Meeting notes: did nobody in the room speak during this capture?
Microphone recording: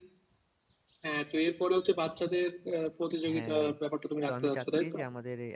No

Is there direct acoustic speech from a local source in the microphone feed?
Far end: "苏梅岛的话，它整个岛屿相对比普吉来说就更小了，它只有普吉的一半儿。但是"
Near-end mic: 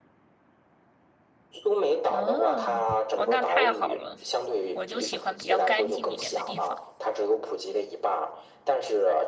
Yes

